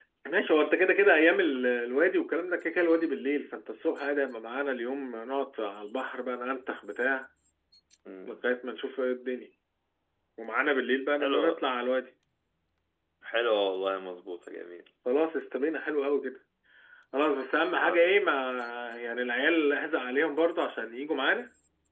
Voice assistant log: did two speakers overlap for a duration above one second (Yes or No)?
No